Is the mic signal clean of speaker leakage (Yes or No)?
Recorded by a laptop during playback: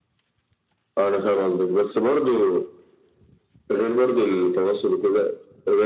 No